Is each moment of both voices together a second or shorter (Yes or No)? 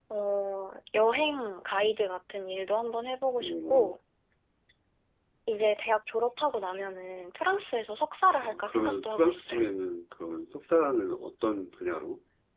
No